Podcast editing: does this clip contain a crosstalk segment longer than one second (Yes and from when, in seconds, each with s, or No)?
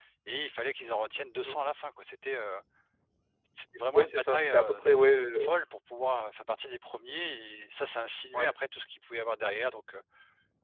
Yes, from 3.9 s